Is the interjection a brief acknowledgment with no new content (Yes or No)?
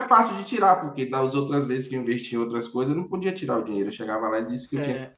Yes